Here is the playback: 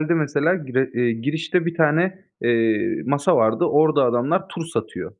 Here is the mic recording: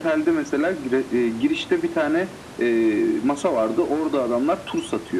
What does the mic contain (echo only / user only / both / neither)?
echo only